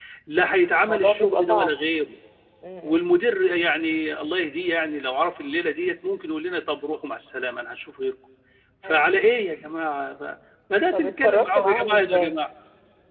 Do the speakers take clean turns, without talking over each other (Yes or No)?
No